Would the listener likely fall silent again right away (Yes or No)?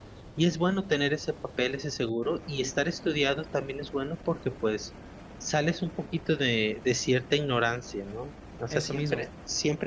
Yes